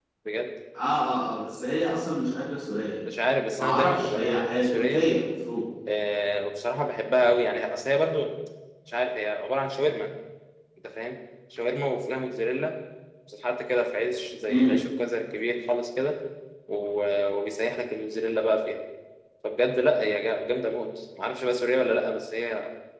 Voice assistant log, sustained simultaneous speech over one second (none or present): present